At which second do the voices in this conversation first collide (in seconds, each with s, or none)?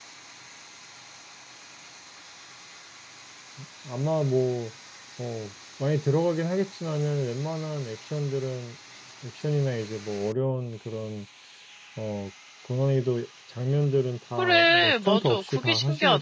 14.4 s